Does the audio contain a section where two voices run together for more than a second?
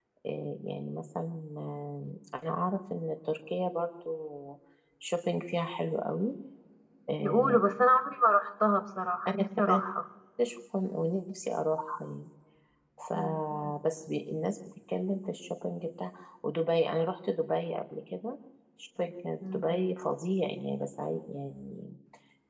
No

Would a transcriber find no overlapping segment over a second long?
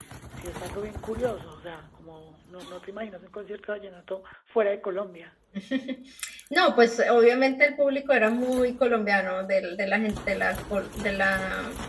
Yes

